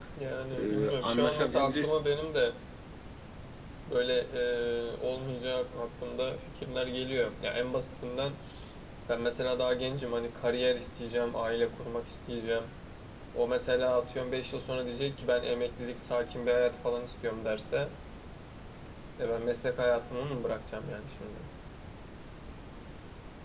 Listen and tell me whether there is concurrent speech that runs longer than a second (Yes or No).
Yes